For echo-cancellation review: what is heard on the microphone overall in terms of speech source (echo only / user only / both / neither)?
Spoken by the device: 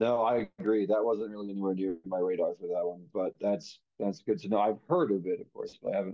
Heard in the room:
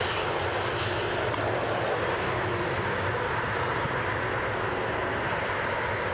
neither